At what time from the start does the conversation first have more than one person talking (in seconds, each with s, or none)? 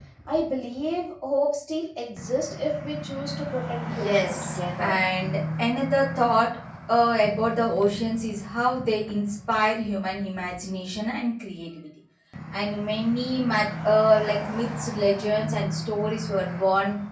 3.8 s